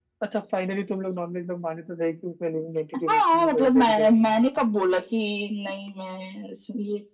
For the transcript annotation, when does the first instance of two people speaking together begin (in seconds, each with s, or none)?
3.1 s